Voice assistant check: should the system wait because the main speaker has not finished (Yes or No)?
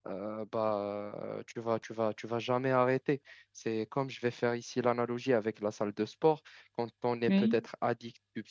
Yes